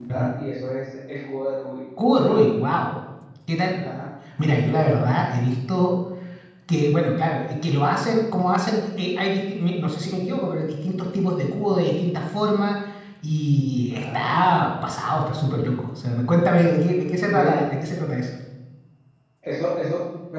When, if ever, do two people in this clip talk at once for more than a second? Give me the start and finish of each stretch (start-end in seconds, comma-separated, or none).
none